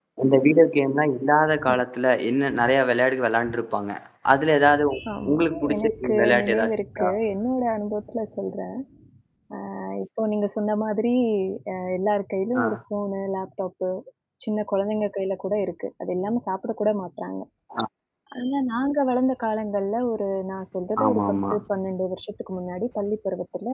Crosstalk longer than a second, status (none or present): present